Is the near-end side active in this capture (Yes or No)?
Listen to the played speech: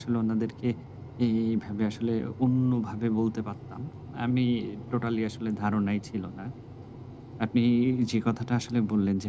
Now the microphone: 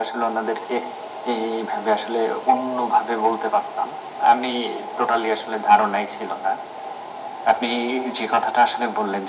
No